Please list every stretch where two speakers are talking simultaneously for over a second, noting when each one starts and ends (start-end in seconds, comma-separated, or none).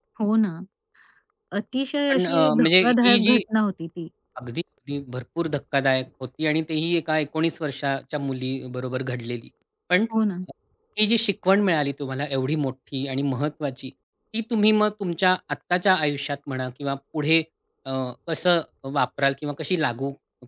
2.1-3.4